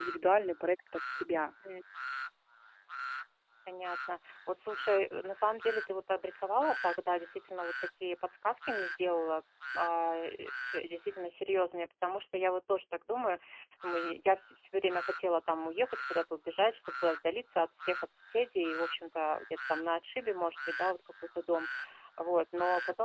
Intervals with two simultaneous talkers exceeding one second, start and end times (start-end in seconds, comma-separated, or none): none